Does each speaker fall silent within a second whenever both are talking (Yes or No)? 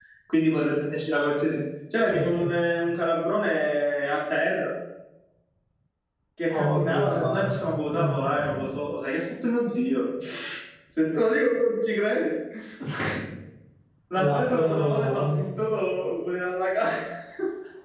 No